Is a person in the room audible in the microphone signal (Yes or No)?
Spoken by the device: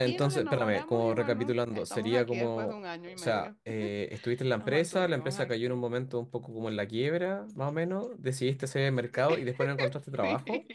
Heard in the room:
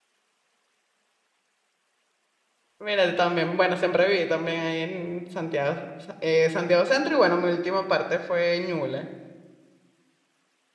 Yes